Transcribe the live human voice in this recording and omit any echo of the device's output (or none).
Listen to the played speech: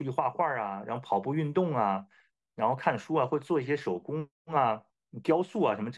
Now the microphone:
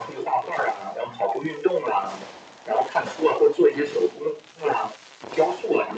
none